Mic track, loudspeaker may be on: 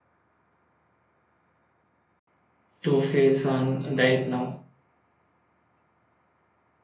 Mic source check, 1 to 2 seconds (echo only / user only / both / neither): neither